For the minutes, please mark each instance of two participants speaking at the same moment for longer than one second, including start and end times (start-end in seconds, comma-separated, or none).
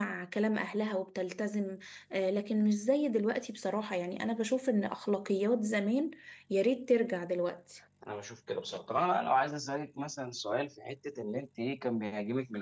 none